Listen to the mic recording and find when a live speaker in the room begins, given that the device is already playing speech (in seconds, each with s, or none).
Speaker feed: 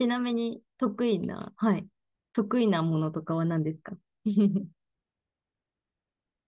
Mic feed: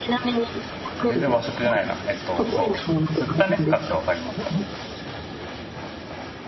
1.1 s